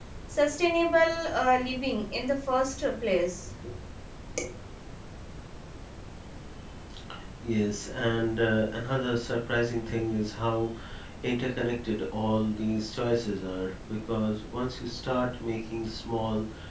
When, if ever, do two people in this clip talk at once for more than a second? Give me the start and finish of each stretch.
none

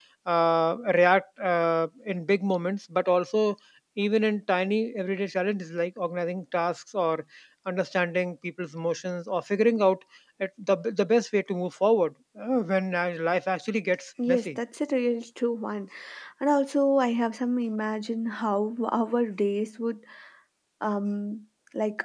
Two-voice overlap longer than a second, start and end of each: none

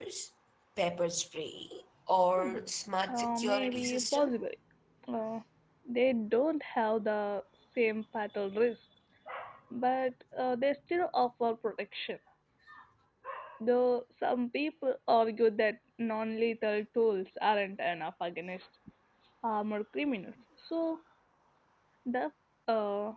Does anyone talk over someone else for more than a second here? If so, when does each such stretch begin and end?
3.1-4.3

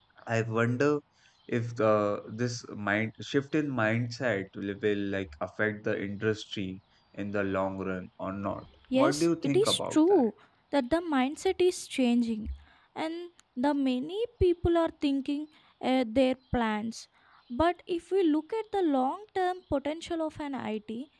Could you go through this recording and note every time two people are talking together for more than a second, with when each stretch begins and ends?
8.9-10.2

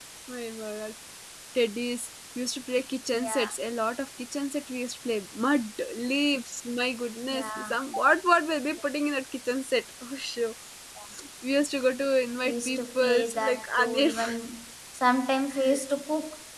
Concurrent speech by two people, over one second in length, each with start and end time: 12.4-14.4

